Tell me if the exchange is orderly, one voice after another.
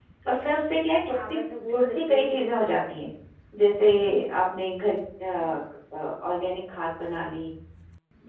No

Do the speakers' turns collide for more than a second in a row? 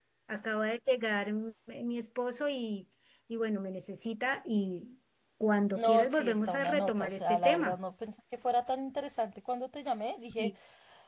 Yes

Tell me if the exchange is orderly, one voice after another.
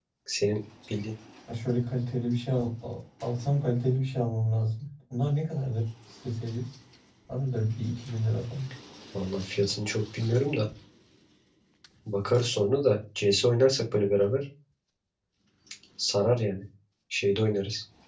Yes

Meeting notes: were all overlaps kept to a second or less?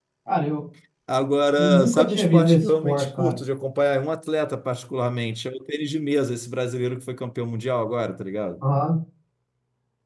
No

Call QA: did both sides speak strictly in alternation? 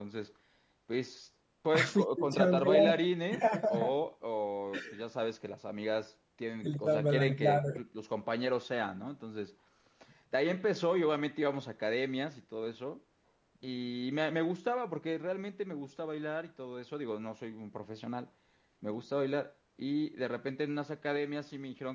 No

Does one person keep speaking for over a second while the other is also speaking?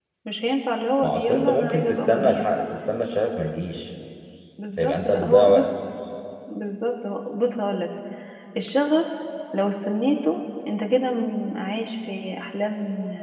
Yes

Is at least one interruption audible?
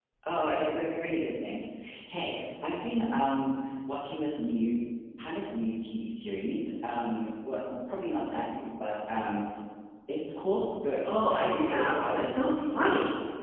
Yes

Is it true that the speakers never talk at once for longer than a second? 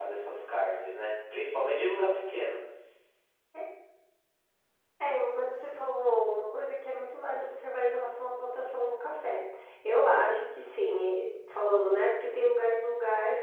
Yes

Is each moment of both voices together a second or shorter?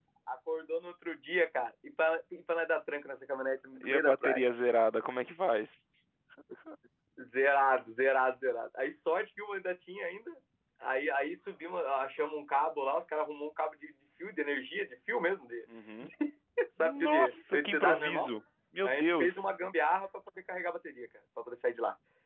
No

